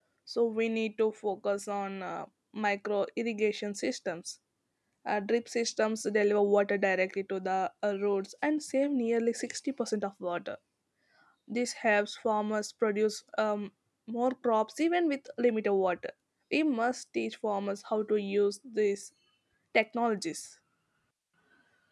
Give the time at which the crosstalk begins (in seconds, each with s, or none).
none